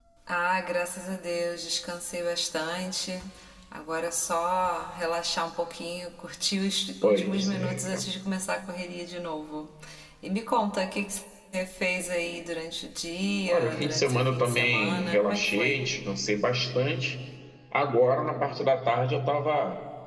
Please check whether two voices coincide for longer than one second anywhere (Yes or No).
Yes